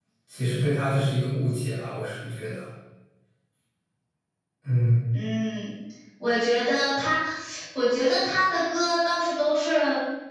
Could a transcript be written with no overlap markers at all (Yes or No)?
Yes